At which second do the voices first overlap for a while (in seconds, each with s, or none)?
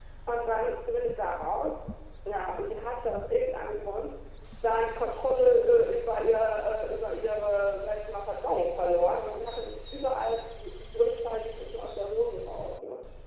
none